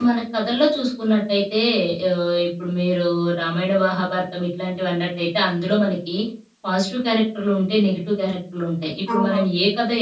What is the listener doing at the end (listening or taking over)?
listening